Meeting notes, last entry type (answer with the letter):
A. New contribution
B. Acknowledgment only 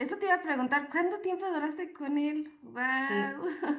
A